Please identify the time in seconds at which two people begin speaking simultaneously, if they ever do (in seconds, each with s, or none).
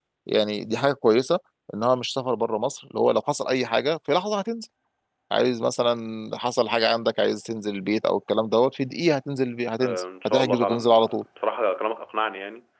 9.8 s